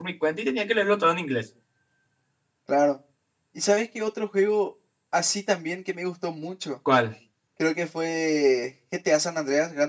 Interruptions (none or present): none